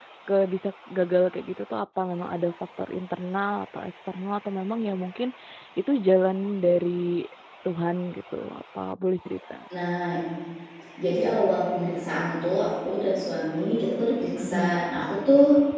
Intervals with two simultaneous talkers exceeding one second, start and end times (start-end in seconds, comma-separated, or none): none